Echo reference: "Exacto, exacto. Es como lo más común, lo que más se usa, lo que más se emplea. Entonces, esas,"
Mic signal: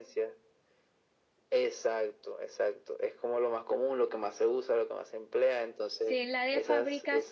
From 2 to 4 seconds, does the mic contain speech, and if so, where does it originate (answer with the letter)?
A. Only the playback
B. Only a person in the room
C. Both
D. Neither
A